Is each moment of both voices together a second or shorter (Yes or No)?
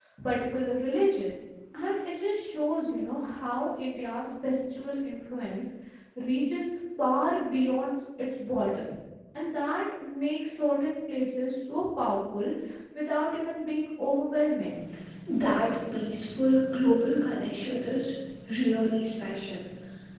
Yes